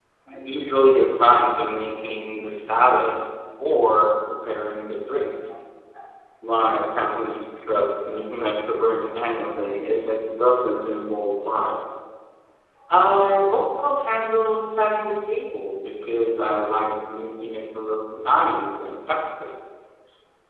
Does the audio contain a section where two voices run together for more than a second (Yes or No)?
No